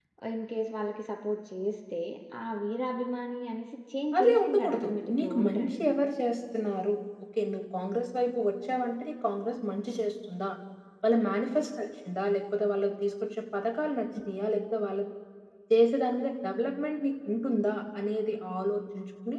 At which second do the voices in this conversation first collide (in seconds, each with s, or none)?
4.2 s